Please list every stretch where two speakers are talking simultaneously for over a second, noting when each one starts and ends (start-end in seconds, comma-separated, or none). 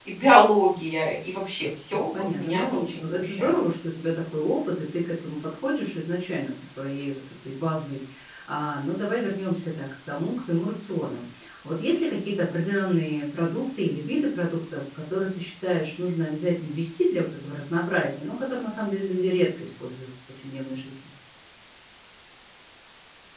1.9-3.5